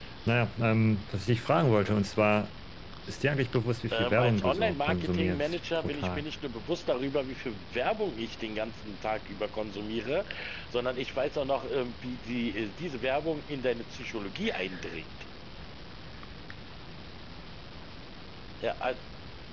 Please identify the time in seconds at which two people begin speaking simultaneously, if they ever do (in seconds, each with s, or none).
3.9 s